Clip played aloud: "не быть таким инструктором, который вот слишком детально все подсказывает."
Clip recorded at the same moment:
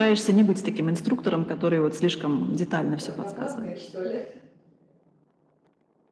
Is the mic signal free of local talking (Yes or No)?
No